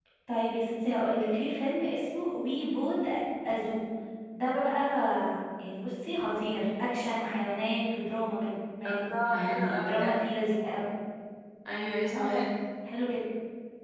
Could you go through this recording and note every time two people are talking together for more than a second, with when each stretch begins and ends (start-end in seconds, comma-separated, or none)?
8.8-10.1